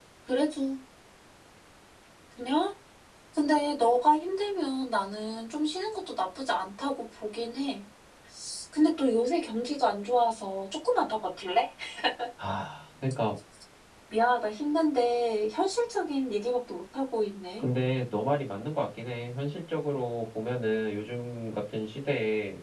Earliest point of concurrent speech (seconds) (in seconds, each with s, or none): none